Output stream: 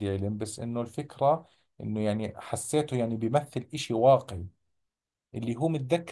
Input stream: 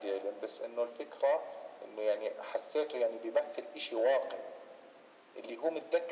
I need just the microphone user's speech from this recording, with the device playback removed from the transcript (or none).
none